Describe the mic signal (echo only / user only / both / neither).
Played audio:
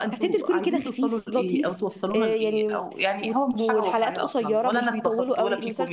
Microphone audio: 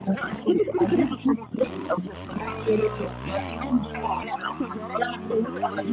echo only